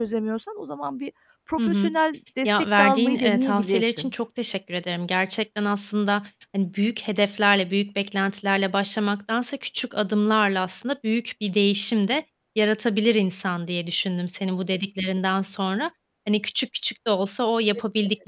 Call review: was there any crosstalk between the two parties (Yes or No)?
Yes